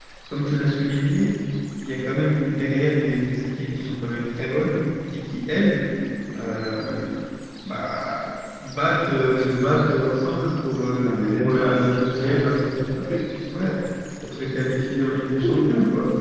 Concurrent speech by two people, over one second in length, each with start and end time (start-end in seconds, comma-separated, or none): 11.0-12.4